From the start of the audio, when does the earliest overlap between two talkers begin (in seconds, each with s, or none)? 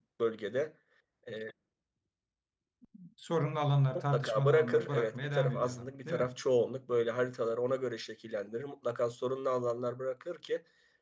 4.0 s